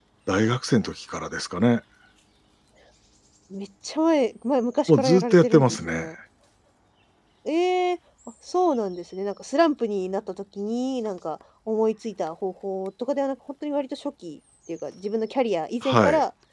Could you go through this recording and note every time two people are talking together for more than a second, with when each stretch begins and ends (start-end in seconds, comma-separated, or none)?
4.9-6.1